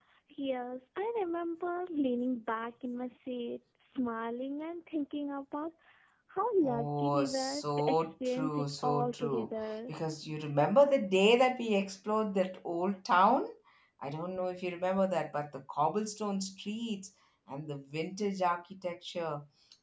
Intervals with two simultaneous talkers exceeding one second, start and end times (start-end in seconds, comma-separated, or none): 6.6-9.9